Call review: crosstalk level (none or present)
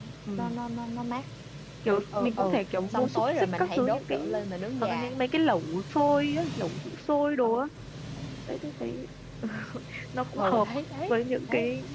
present